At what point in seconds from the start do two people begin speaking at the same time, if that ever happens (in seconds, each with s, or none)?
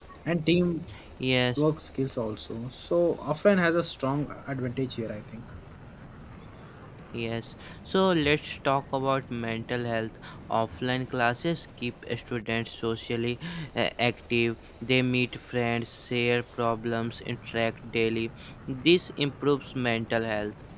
none